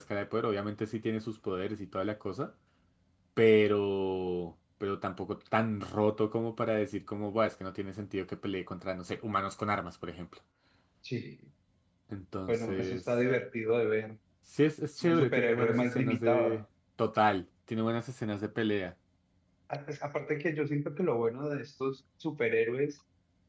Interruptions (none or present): present